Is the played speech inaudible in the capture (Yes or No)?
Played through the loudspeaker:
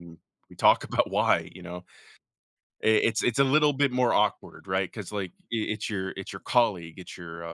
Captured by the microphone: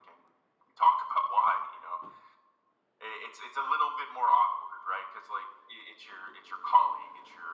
No